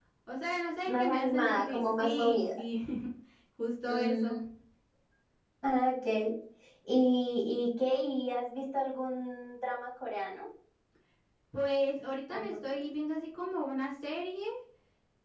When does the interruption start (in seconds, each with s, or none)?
0.8 s